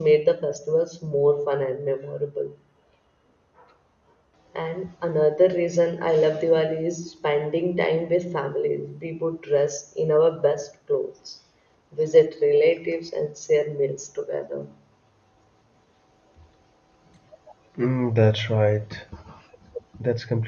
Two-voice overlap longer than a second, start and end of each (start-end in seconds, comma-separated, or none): none